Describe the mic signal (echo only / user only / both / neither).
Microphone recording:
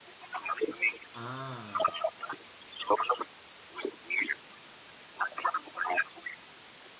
both